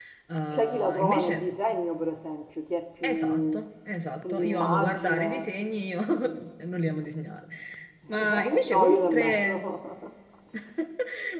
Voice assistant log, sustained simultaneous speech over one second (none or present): present